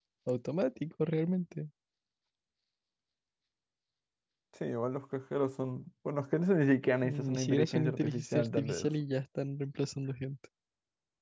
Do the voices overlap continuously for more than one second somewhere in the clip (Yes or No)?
Yes